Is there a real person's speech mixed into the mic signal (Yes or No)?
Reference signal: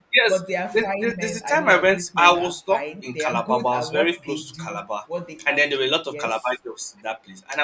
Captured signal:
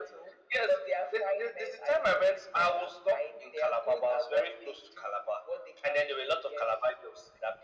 No